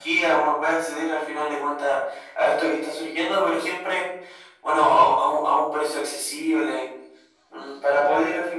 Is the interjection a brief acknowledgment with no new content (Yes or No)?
Yes